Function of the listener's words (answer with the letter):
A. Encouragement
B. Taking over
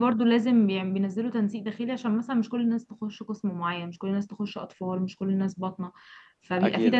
A